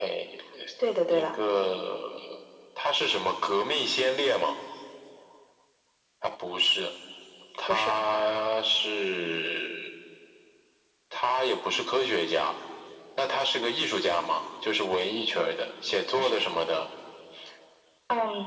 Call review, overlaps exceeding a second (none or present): none